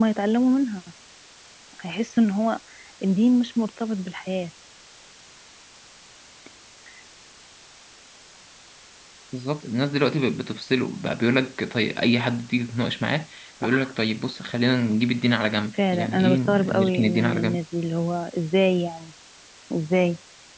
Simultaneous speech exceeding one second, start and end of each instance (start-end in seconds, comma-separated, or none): 15.9-17.6